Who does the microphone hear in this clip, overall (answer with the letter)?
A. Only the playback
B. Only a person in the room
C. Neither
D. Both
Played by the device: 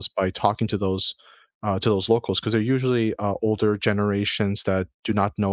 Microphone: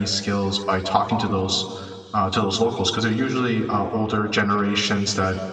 A